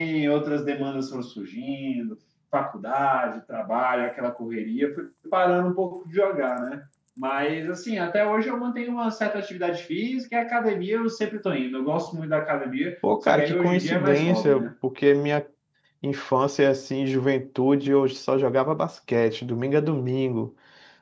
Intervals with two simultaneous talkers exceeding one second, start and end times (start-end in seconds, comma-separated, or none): 13.3-14.7